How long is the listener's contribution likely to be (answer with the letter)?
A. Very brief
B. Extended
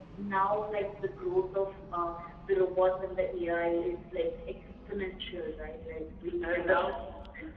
B